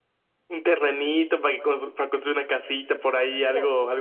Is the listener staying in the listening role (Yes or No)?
No